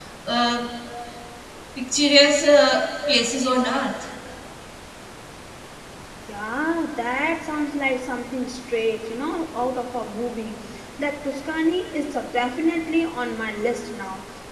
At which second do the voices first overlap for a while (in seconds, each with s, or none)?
none